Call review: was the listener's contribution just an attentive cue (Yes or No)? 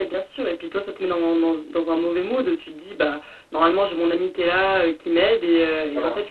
Yes